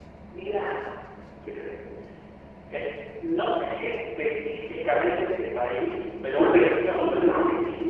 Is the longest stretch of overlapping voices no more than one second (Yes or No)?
No